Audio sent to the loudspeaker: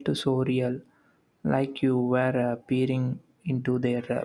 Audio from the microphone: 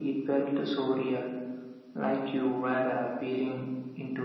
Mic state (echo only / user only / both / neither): echo only